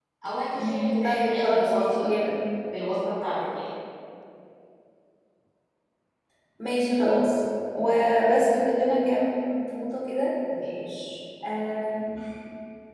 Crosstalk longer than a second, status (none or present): present